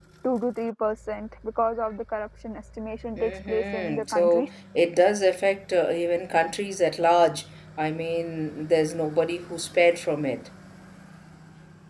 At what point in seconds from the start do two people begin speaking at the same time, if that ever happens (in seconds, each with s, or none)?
3.2 s